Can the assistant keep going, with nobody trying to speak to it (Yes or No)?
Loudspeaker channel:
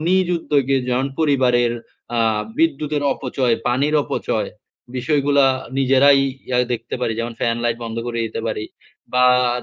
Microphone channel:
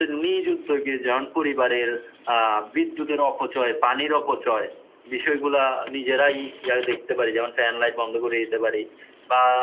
Yes